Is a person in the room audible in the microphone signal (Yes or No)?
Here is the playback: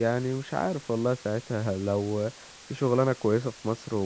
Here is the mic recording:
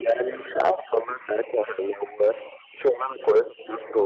No